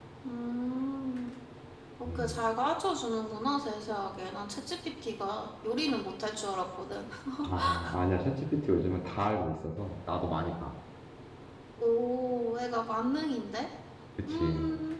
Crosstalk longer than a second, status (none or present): none